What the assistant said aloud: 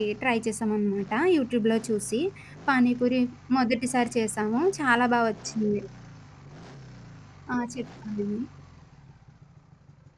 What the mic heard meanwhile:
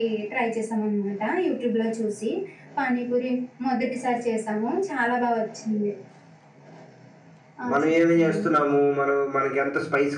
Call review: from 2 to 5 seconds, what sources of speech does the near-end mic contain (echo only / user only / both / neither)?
echo only